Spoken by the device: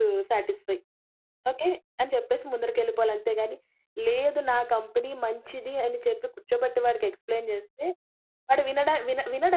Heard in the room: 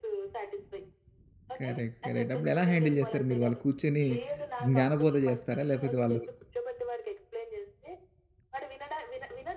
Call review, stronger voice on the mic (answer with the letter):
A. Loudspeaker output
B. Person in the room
B